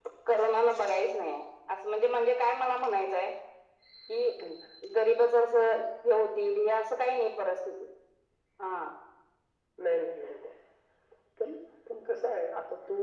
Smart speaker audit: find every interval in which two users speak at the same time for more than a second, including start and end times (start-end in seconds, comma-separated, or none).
none